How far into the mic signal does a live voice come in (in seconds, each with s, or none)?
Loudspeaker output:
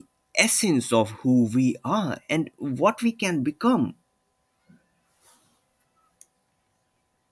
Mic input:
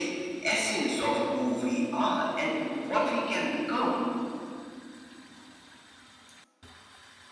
none